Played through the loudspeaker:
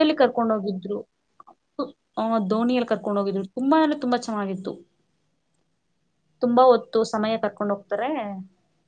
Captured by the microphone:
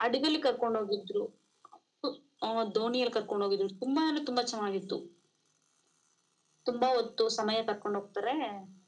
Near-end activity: none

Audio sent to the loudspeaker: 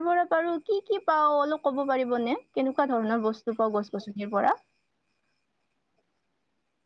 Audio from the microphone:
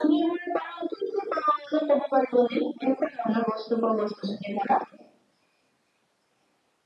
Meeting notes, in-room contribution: none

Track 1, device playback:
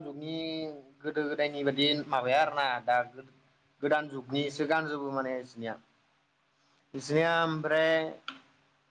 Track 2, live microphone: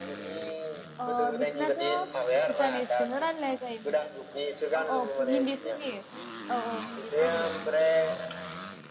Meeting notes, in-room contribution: present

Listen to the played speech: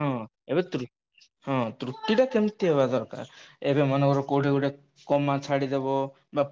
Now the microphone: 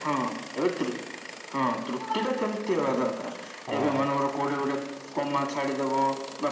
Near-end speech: present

